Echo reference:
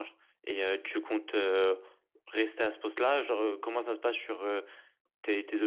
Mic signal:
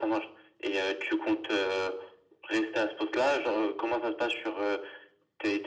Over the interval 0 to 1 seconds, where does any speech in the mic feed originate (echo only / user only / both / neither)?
echo only